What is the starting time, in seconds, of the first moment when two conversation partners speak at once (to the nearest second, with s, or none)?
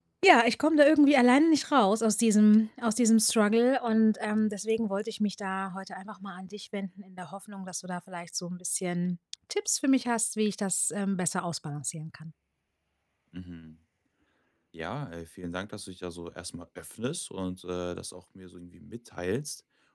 none